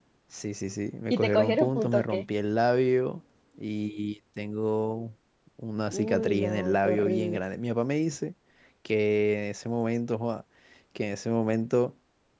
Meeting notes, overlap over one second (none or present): present